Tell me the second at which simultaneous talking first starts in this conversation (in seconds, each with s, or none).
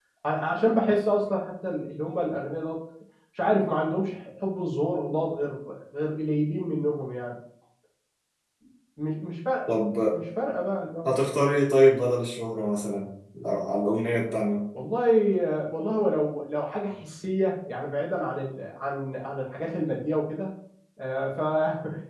none